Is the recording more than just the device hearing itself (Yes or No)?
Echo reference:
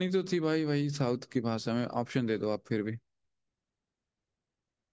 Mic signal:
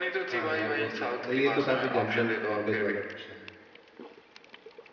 Yes